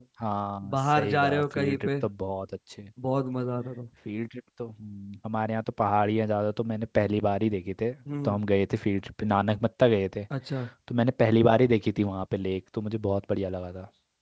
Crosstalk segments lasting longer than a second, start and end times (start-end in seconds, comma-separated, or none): 0.7-1.9